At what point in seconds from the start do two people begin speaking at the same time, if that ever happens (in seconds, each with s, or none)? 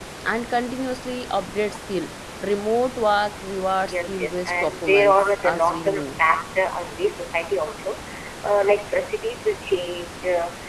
3.8 s